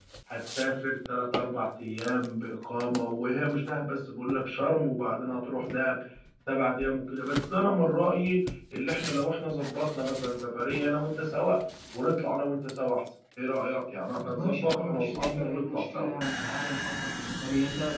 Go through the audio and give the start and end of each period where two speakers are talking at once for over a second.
14.3-16.1

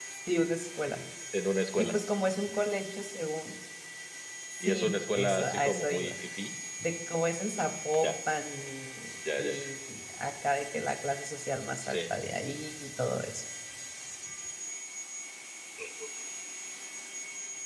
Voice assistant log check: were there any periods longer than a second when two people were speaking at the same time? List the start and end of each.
4.6-6.1

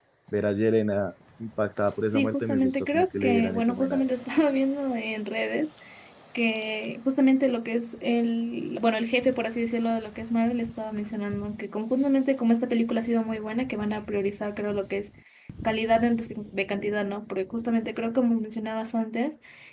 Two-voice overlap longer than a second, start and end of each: 2.0-4.1

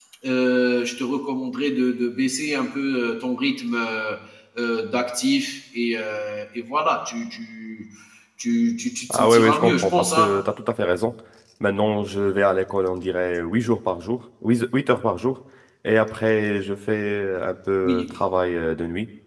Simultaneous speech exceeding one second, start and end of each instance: 9.1-10.3

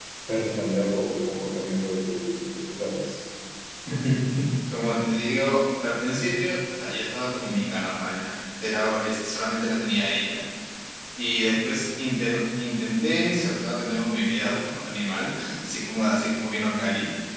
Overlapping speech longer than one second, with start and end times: none

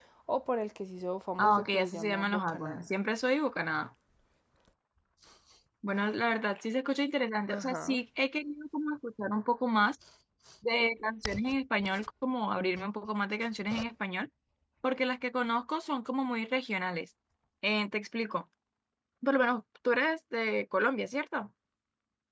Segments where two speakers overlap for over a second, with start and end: 1.4-2.9

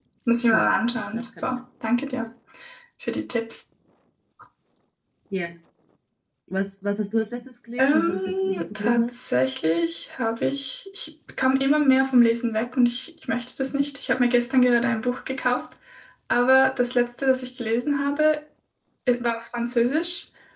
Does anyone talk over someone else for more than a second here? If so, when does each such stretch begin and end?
7.8-9.1

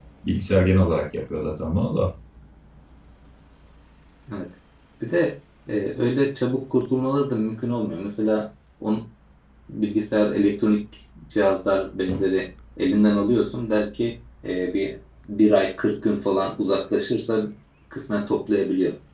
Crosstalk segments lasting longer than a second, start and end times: none

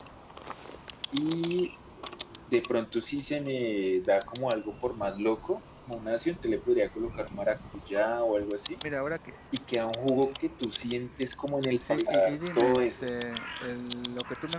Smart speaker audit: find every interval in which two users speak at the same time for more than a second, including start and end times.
11.8-13.1

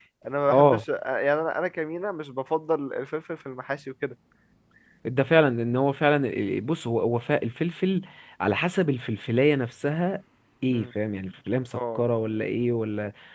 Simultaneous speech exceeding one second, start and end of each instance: none

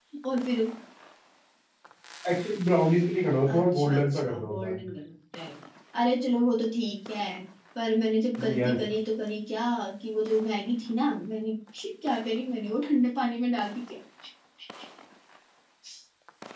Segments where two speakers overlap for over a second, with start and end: 3.5-4.7

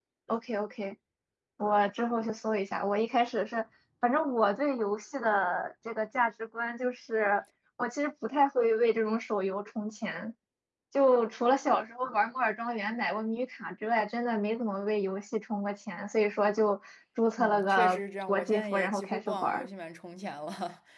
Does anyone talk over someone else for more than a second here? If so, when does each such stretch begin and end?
17.4-19.7

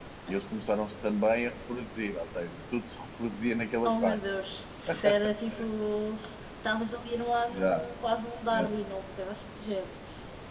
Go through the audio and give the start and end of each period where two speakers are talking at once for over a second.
none

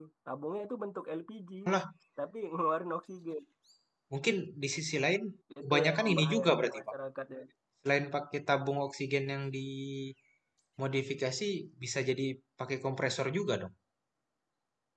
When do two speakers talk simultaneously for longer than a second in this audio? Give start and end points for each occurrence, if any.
5.6-6.9

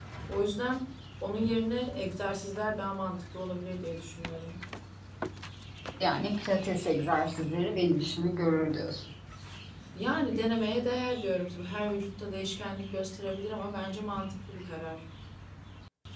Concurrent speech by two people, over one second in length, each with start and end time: none

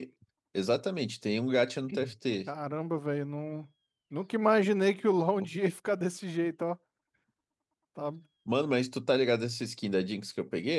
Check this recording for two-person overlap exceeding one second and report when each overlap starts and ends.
none

